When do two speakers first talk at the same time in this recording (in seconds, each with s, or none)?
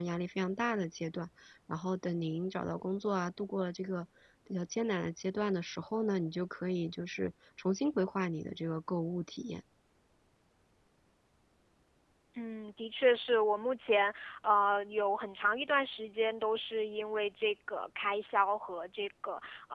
none